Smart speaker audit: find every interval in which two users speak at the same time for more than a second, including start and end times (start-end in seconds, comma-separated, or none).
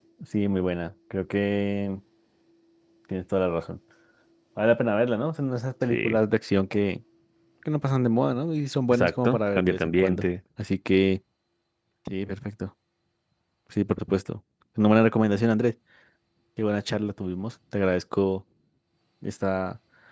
8.9-10.2